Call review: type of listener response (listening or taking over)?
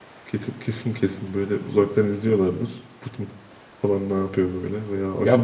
taking over